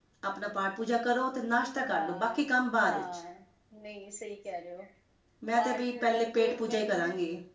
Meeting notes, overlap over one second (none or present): present